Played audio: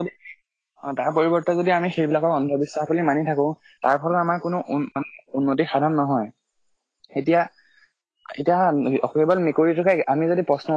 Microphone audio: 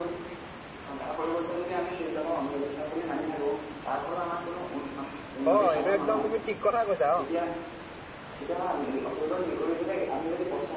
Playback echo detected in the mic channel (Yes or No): Yes